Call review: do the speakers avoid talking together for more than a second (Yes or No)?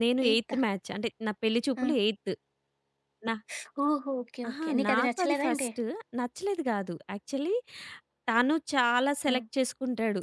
No